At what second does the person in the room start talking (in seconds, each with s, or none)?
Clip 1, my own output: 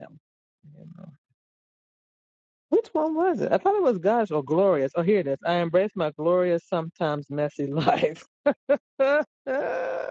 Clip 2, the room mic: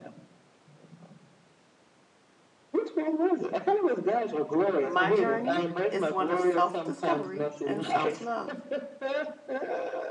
4.8 s